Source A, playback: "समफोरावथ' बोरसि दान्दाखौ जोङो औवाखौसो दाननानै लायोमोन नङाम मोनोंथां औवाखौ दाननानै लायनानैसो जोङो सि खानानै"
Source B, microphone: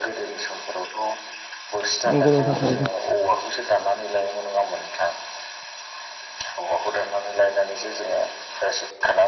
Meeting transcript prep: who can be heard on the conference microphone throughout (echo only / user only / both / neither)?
both